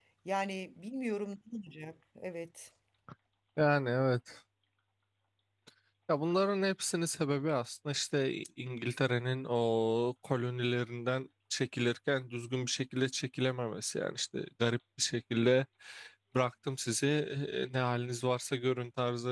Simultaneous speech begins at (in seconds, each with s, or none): none